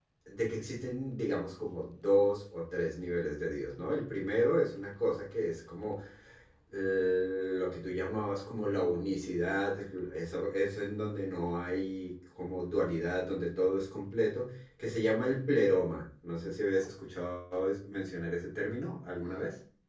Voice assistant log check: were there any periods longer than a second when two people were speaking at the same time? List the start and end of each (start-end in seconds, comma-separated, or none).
none